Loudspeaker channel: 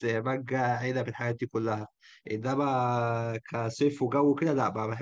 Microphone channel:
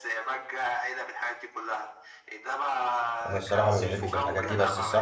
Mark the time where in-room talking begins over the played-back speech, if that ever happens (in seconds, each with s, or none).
3.3 s